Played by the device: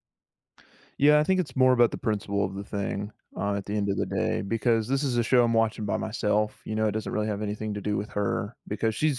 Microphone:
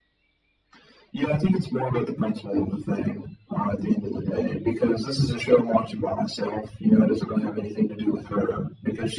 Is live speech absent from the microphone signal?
Yes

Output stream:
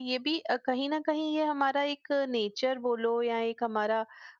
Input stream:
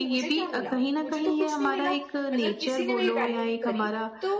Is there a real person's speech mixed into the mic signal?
Yes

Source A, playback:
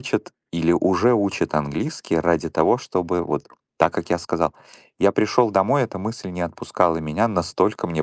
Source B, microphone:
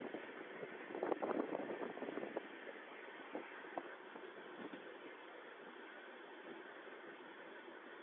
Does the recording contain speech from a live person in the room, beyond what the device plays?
No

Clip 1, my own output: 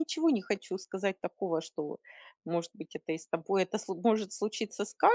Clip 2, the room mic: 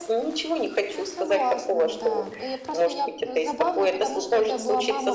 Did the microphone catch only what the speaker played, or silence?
No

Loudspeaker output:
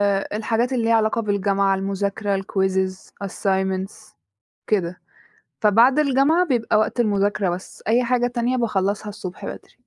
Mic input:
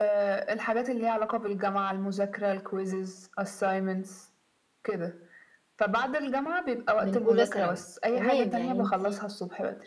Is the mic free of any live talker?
No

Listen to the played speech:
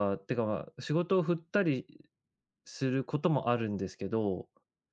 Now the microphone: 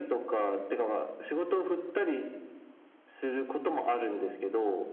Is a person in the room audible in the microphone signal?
No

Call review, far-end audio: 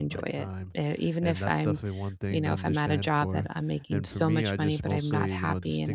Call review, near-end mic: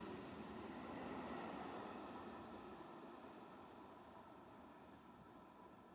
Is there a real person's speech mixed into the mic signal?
No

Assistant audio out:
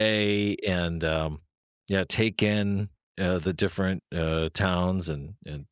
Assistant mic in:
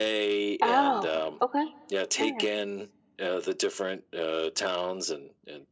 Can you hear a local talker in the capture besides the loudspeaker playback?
Yes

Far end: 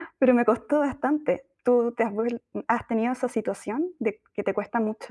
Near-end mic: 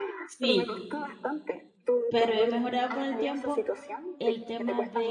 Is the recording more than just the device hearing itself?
Yes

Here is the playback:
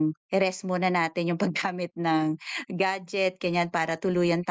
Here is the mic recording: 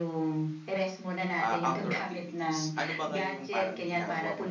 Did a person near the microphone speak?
Yes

